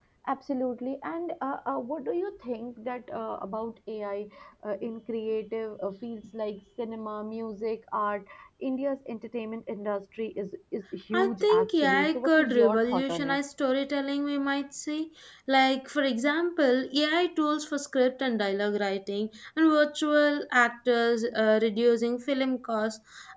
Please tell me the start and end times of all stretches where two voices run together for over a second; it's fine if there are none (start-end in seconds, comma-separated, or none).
11.1-13.4